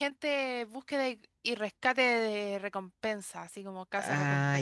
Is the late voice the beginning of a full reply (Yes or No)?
Yes